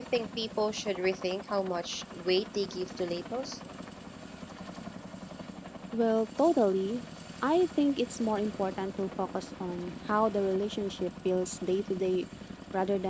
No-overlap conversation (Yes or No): Yes